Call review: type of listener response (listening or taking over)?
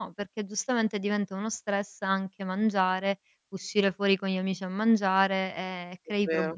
listening